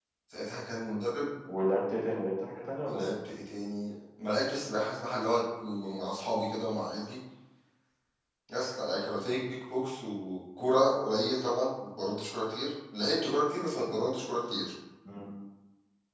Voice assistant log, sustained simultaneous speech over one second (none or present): none